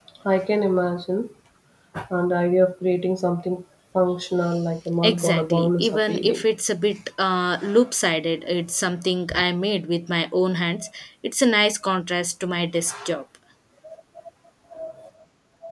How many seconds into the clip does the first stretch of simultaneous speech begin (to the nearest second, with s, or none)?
5 s